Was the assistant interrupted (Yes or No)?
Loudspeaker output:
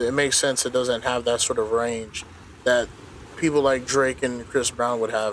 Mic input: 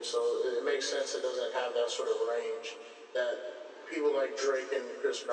No